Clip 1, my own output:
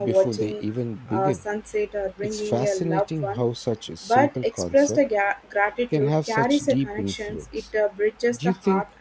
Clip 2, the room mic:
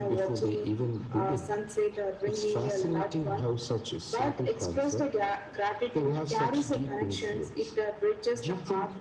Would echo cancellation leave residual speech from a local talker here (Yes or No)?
No